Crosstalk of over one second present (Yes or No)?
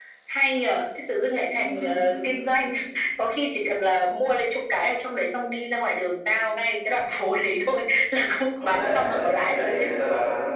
Yes